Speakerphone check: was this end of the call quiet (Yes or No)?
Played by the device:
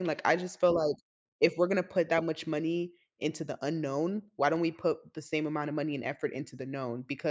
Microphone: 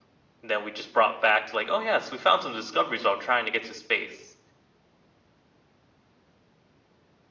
No